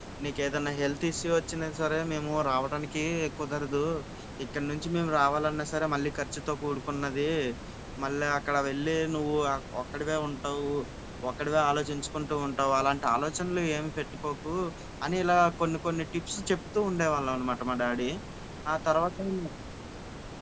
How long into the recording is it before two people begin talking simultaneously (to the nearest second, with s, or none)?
none